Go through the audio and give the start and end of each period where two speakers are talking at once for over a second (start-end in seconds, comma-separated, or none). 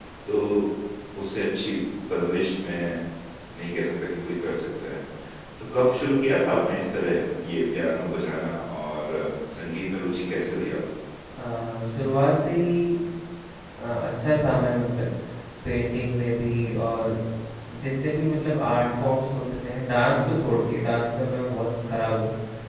none